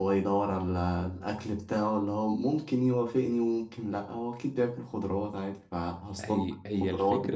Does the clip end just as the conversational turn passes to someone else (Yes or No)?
Yes